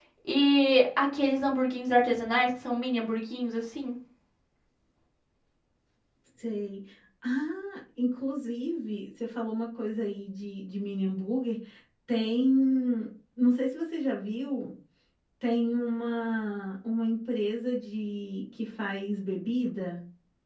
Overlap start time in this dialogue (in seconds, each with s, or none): none